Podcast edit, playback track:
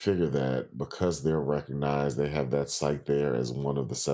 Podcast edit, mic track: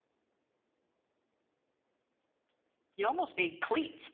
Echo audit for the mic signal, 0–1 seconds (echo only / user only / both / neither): neither